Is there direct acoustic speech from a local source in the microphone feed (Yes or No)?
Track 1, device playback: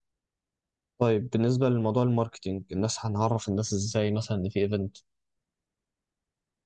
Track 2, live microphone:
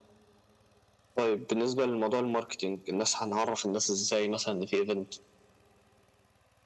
No